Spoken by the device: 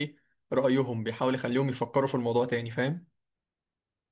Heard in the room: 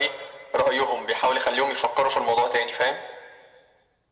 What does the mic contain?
echo only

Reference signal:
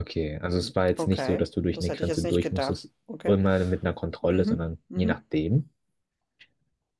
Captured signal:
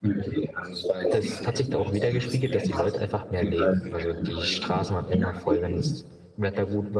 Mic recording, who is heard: both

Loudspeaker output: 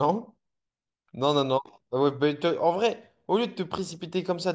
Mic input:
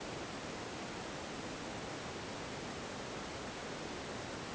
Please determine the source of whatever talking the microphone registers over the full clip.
neither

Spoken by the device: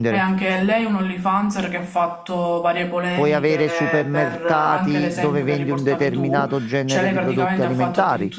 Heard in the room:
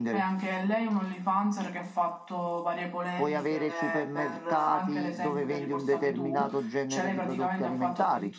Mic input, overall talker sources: echo only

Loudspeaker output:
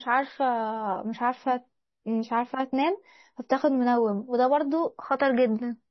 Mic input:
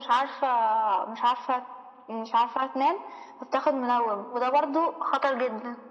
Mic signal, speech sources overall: echo only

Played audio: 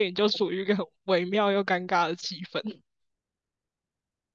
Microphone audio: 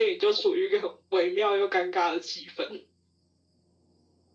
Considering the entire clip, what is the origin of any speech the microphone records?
echo only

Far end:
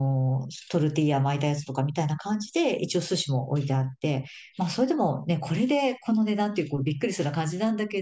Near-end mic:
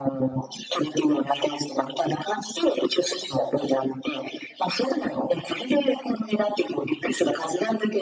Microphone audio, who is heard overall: echo only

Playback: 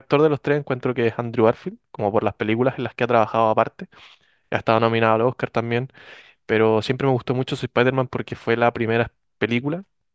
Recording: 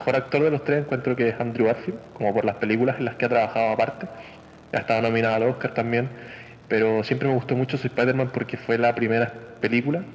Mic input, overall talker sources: echo only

